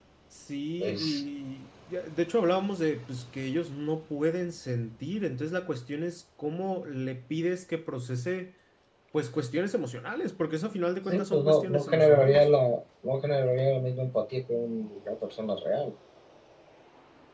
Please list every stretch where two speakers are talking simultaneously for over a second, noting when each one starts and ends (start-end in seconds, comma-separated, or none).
11.1-12.5